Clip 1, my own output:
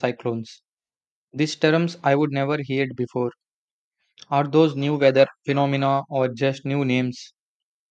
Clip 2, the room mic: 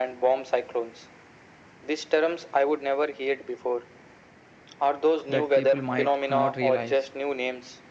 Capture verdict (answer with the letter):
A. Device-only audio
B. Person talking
B